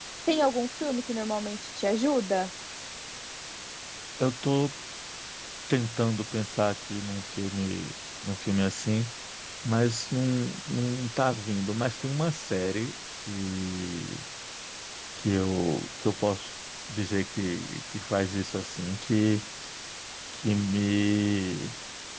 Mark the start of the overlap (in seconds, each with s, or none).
none